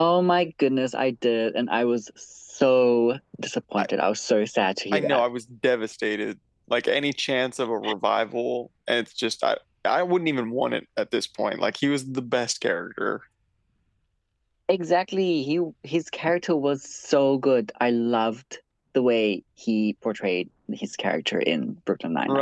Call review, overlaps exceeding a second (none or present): none